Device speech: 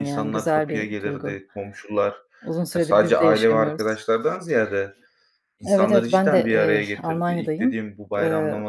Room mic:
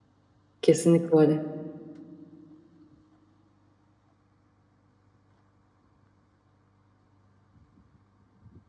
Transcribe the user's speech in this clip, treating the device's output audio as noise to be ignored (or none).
Kesinlikle öyle.